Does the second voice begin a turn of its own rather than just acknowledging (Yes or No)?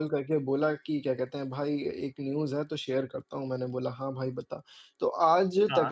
No